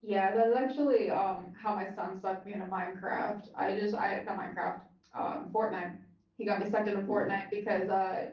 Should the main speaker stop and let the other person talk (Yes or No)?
No